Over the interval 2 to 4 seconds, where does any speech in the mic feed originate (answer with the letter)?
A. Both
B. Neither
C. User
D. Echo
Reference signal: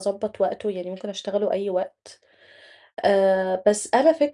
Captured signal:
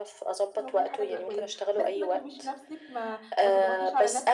A